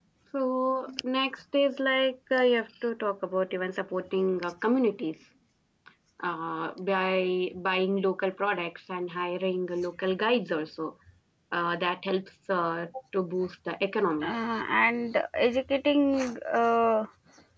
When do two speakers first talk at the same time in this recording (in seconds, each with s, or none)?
none